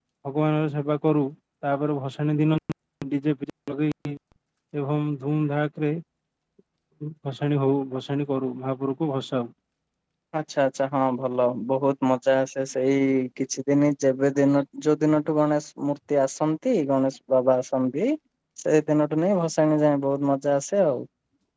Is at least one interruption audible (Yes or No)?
No